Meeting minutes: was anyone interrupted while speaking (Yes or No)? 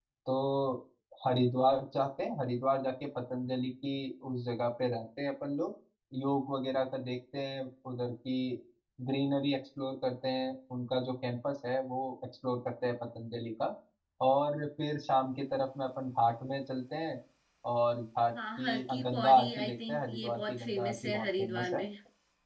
Yes